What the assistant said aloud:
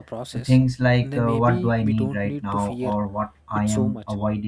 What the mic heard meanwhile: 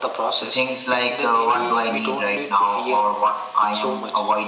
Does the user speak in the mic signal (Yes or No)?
No